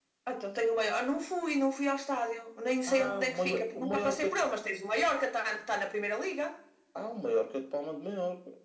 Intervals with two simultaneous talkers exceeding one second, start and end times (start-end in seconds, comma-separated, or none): 2.9-4.3